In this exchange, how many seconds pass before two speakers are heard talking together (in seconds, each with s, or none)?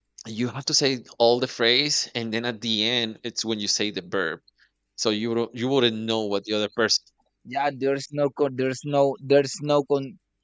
none